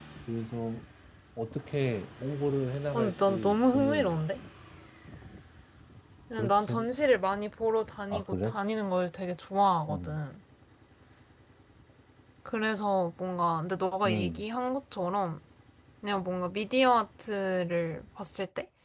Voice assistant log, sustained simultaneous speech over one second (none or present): present